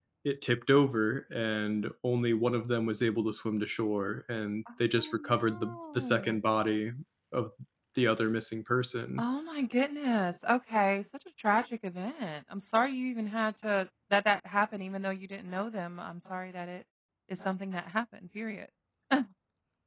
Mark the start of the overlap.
5.0 s

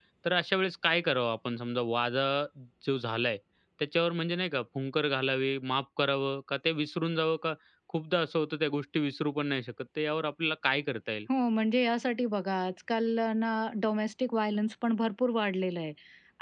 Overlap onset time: none

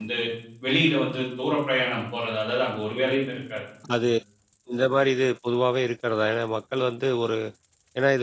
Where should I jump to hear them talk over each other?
none

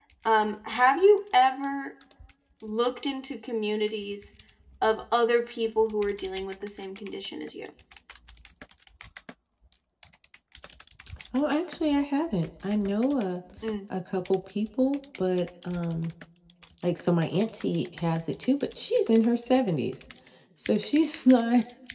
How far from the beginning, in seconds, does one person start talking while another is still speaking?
none

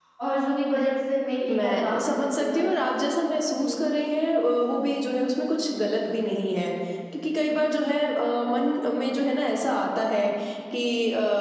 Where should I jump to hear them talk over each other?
1.5 s

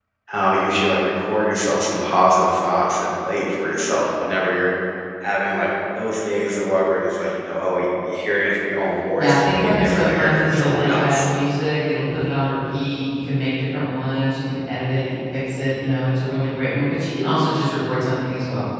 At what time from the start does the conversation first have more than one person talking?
9.2 s

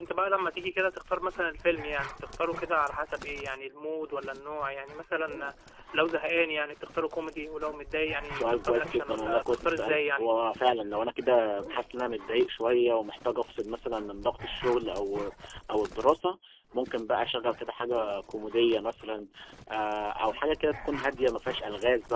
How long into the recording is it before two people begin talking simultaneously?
8.3 s

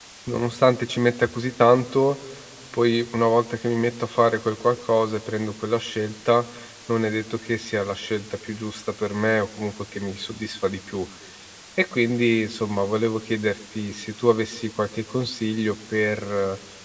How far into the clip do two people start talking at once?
none

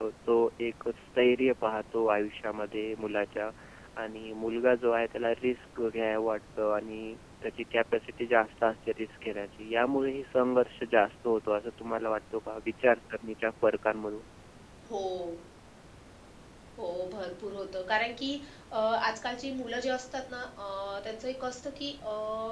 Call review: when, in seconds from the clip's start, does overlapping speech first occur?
none

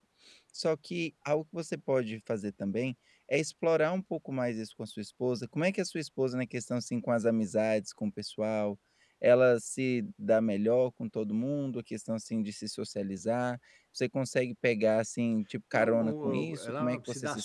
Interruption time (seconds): 15.7 s

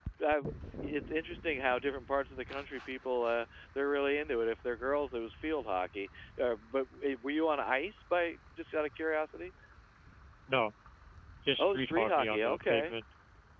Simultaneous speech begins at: 11.6 s

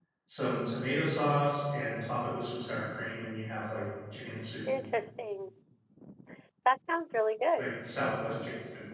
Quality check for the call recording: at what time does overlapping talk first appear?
none

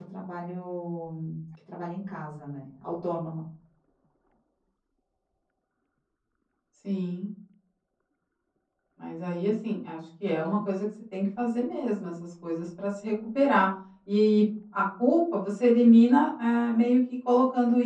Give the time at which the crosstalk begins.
none

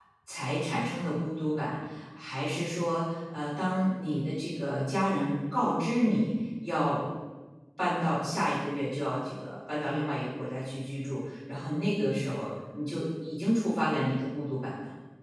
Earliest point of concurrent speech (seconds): none

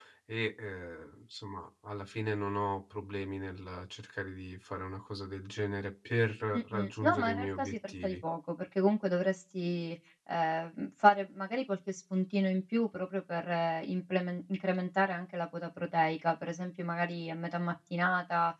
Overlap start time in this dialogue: 6.5 s

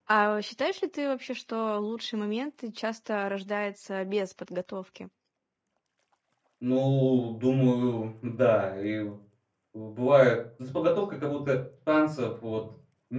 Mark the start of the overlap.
none

